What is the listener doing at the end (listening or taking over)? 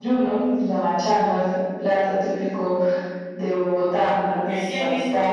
taking over